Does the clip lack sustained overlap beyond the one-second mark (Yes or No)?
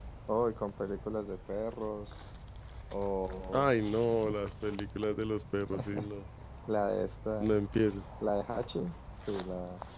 Yes